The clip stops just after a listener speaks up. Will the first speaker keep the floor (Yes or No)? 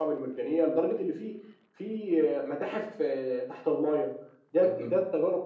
Yes